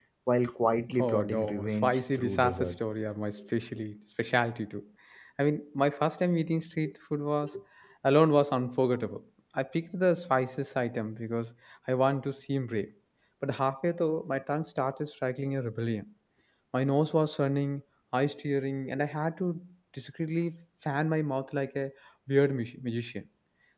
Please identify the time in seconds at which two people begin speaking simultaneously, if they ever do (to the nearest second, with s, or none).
1 s